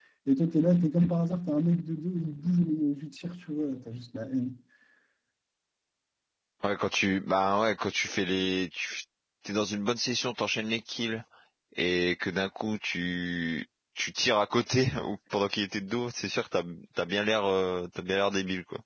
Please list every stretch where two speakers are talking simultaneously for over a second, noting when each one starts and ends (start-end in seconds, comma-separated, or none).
none